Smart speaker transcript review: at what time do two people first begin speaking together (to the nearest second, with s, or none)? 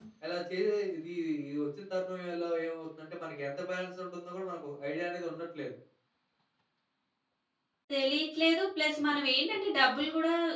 none